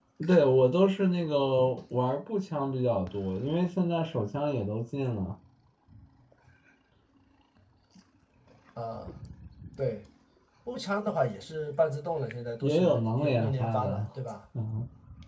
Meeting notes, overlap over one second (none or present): present